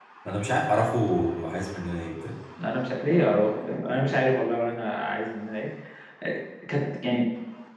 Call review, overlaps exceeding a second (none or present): none